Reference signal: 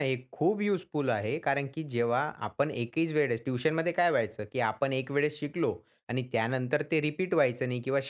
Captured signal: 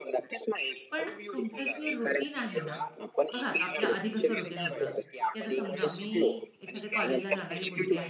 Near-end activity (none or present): present